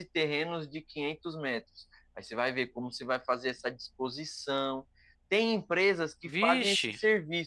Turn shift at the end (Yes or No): No